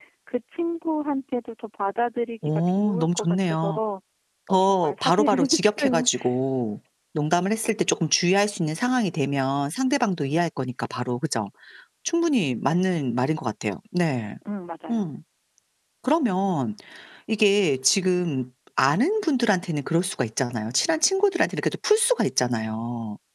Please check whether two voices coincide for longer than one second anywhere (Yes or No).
Yes